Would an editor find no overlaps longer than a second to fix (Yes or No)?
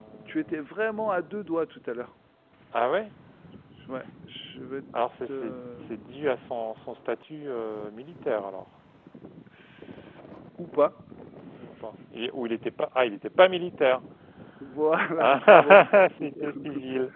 No